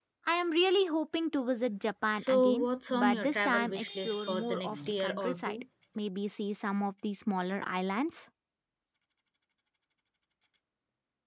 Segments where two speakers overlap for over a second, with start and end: 2.1-5.6

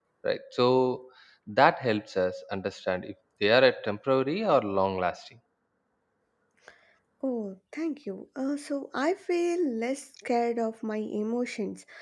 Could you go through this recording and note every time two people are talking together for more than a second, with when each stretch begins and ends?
none

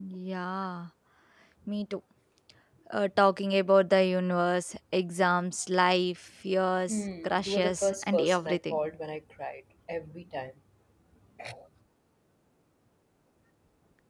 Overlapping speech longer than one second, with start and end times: 6.9-8.8

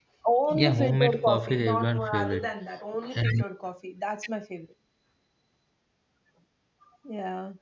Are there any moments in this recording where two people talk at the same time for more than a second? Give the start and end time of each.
0.5-2.5

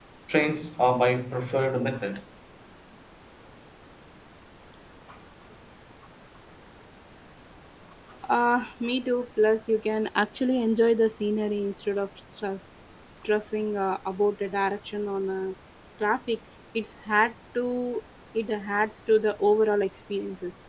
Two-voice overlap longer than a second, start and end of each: none

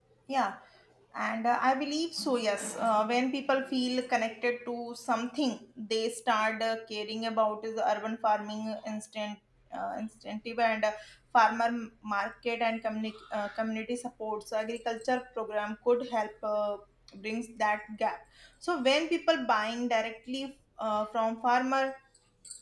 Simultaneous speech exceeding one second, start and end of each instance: none

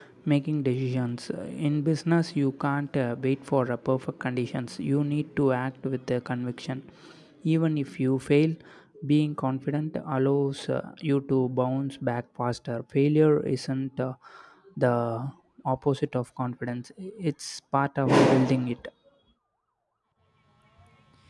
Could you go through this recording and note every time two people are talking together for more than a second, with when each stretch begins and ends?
none

